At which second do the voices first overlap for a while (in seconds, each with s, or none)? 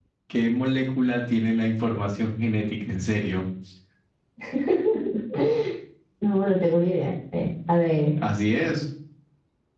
none